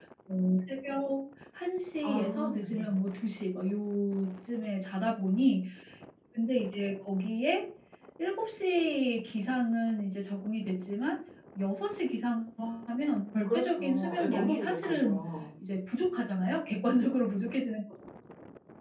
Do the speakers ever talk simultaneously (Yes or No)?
Yes